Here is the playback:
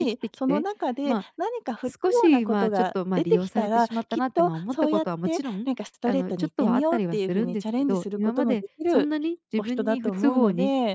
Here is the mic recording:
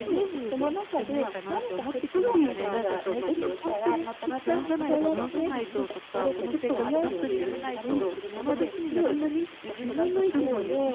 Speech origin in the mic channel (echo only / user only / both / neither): both